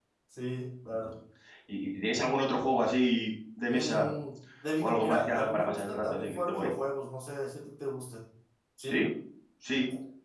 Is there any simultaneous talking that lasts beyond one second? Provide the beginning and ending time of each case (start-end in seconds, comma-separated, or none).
4.8-6.7